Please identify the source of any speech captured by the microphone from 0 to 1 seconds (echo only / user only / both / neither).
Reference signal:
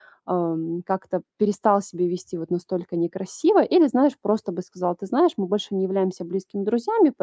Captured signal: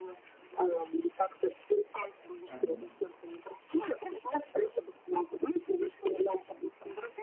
echo only